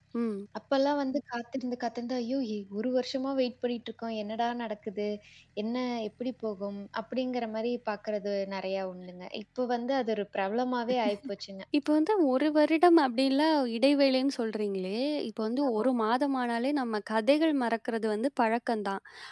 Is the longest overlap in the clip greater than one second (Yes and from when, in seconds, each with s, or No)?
No